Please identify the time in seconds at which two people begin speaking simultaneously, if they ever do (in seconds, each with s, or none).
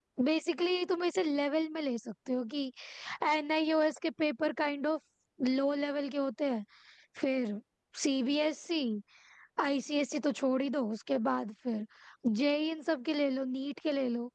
none